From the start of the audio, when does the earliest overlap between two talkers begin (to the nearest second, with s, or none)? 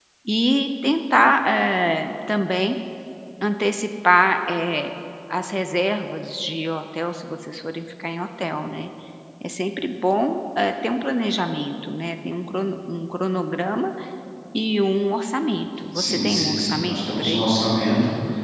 16 s